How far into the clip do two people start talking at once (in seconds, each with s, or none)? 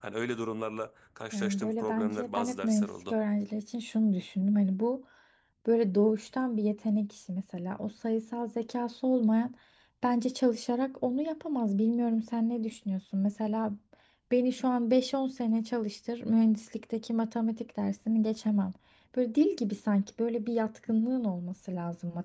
1.3 s